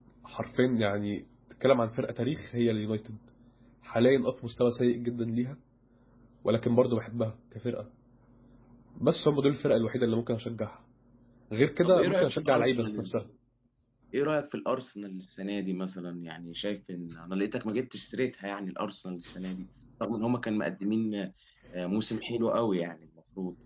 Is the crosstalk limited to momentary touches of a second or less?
No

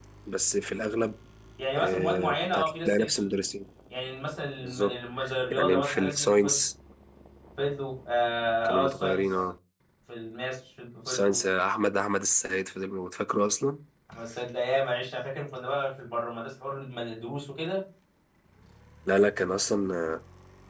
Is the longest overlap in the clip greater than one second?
Yes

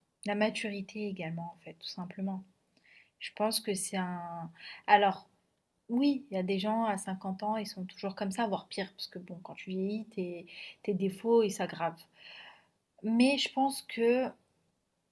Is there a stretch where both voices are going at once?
No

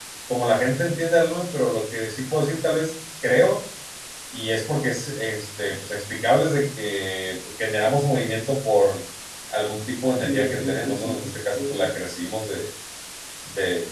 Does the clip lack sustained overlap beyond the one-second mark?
No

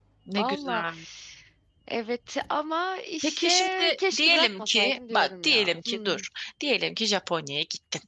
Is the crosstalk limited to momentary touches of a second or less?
No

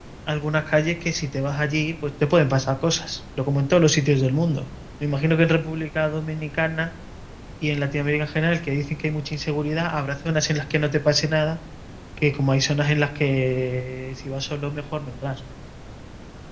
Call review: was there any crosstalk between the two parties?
No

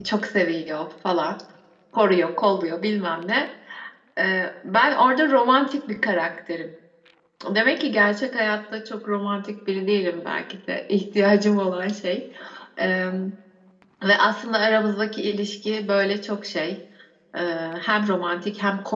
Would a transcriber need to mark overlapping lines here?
No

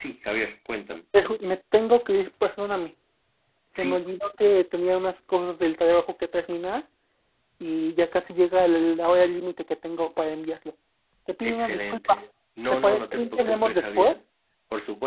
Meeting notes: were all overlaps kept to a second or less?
No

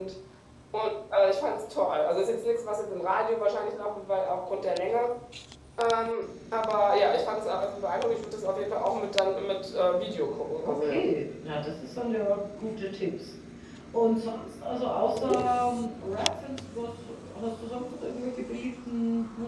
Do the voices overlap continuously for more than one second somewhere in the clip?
No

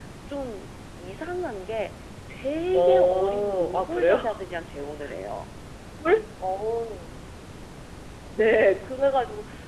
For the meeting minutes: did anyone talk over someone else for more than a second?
Yes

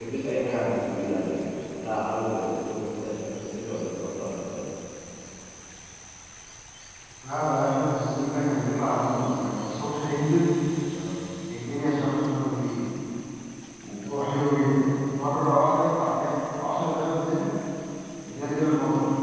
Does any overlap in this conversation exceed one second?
No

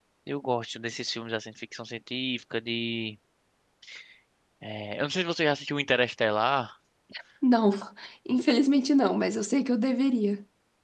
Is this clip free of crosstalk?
Yes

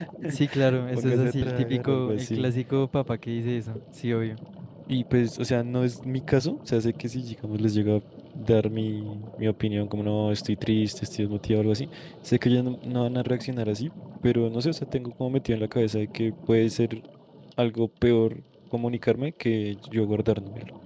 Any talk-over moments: Yes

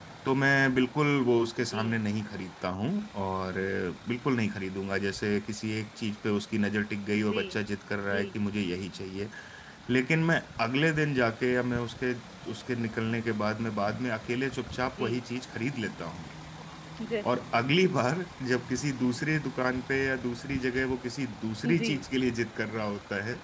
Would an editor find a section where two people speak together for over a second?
No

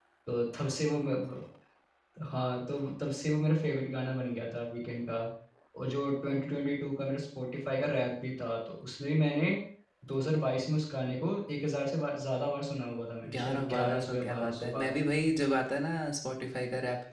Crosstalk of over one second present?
Yes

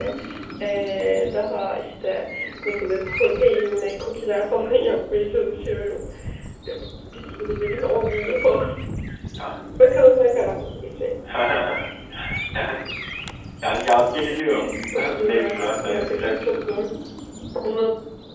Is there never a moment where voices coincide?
No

